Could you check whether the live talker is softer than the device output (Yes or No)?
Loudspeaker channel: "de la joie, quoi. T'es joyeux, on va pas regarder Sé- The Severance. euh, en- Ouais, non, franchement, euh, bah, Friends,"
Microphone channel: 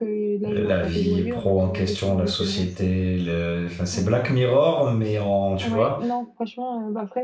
No